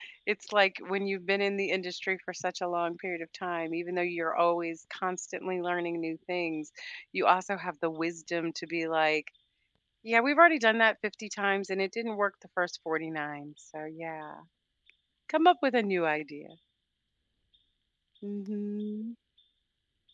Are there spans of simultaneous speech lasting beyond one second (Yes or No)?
No